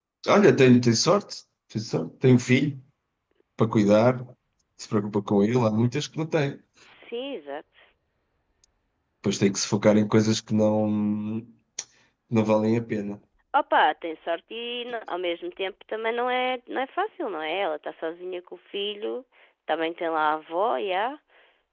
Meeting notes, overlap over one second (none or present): none